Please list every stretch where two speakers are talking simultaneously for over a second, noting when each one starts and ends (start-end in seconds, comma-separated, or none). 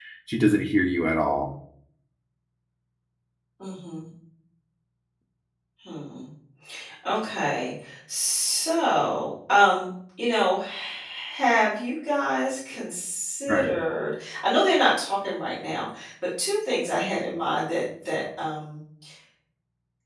none